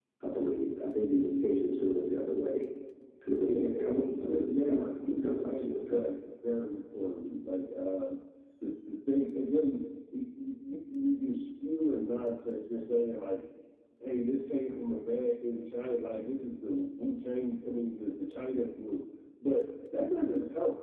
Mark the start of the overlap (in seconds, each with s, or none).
3.4 s